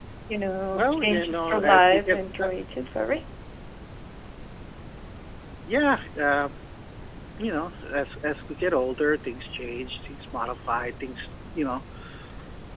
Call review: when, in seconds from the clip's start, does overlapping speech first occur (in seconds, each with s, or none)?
0.7 s